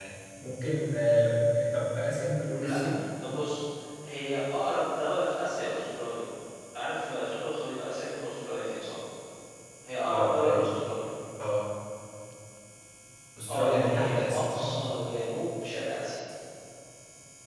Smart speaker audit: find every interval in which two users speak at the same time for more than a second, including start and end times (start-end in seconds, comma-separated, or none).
13.5-14.7